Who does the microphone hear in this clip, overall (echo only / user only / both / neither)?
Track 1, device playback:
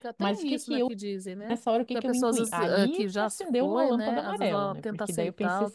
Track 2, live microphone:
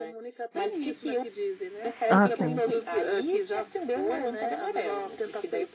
both